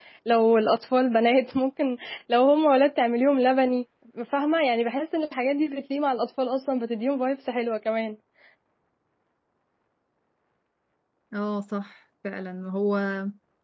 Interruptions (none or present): none